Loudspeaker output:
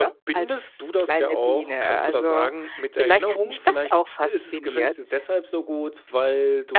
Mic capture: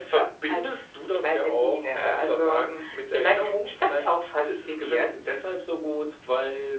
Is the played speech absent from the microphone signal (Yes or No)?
No